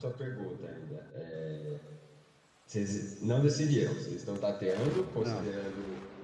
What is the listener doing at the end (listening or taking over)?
listening